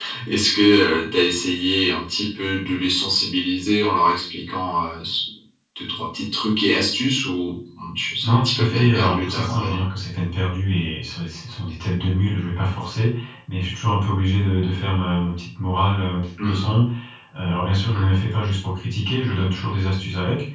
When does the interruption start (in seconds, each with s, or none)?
8.2 s